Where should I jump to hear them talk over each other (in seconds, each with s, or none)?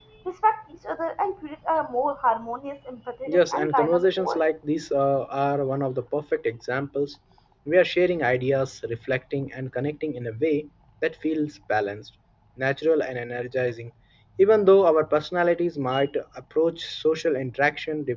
3.3 s